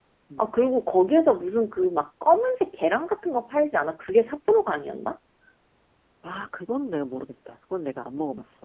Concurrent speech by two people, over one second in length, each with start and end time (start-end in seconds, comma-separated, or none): none